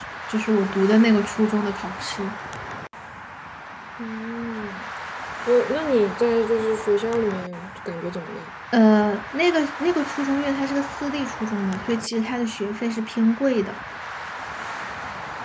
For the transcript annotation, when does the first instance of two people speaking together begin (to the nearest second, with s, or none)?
none